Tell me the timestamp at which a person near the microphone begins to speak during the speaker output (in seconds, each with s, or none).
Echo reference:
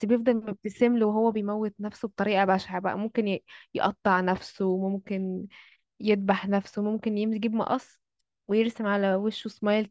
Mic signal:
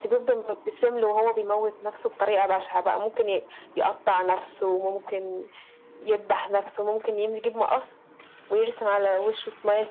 none